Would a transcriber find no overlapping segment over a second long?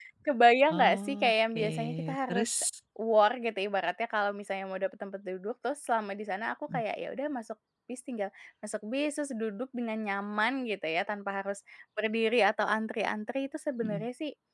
No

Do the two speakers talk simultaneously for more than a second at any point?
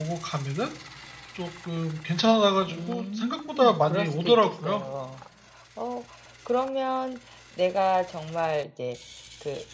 Yes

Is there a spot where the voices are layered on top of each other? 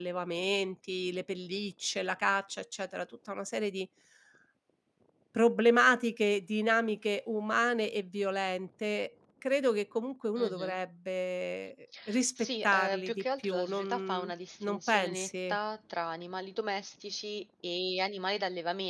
Yes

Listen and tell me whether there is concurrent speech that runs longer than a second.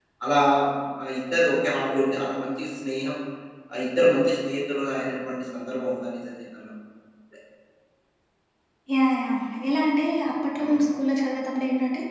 No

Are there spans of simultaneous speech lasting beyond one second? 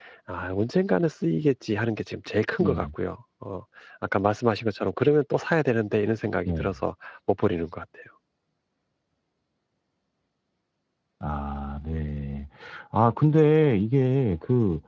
No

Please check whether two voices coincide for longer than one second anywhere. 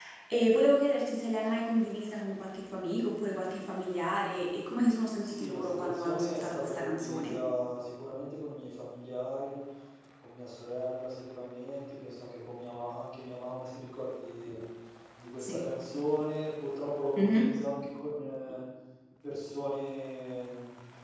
Yes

